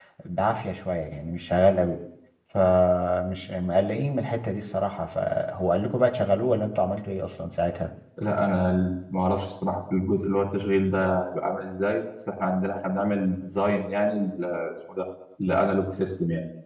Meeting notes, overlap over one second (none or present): none